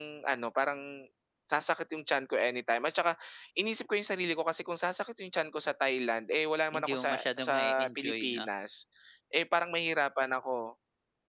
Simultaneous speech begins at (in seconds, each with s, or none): 6.7 s